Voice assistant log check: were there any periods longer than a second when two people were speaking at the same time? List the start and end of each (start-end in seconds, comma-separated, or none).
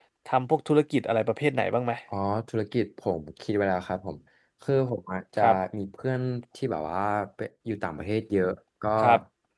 none